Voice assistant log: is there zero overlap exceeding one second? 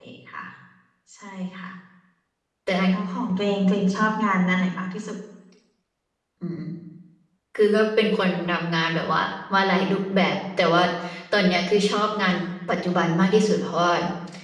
Yes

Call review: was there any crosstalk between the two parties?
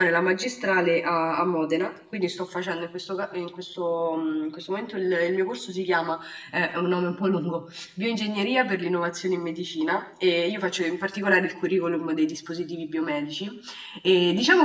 No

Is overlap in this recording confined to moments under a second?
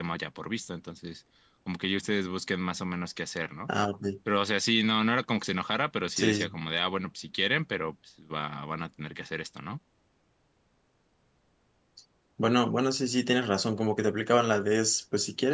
Yes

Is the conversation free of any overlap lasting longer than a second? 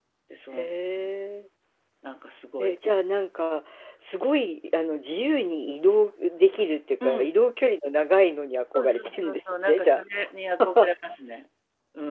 No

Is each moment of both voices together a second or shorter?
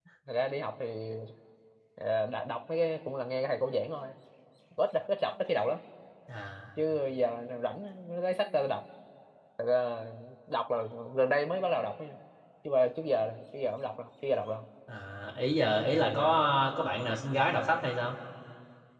Yes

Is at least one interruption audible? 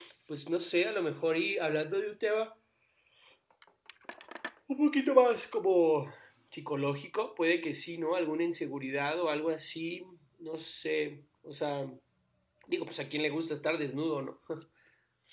No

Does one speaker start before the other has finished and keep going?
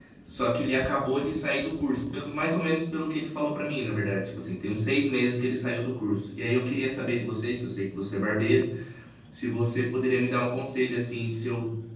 No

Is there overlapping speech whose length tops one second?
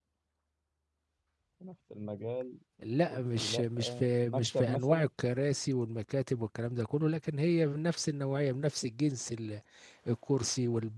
Yes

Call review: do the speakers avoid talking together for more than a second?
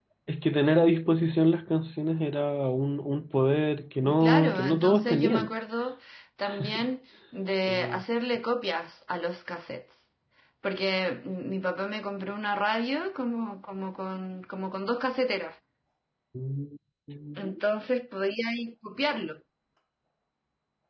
No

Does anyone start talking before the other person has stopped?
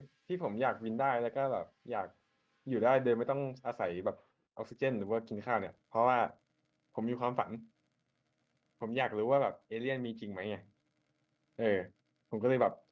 No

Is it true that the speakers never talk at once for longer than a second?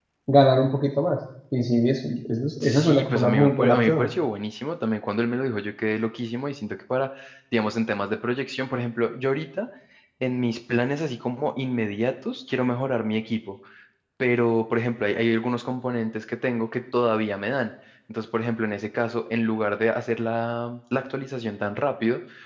No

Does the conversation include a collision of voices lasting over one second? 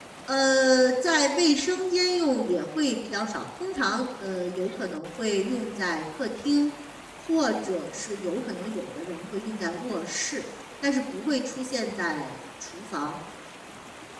No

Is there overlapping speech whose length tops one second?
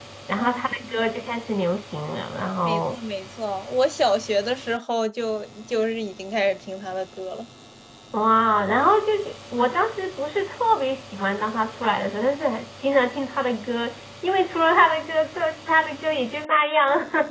No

